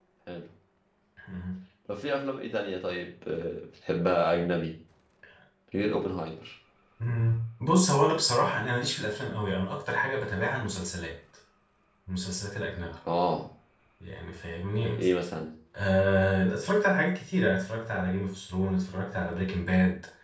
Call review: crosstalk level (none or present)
none